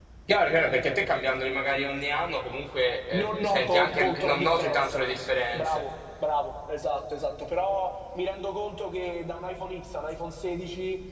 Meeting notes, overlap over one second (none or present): present